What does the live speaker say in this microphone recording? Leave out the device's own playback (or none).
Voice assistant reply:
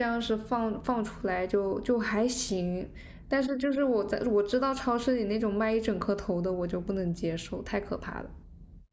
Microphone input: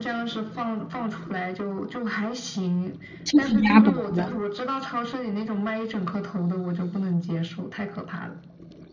是烤鸭脖吗？